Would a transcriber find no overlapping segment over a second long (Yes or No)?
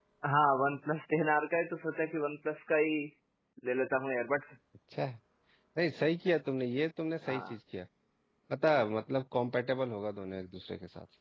Yes